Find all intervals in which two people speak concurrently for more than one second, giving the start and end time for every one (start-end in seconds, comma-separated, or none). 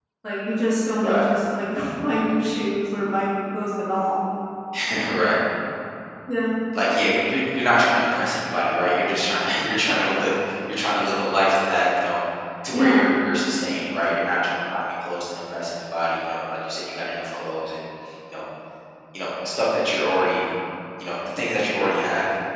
none